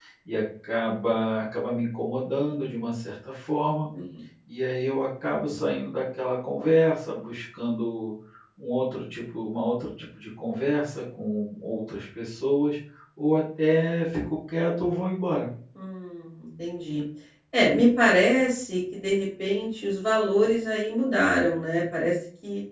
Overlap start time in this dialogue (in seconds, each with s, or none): none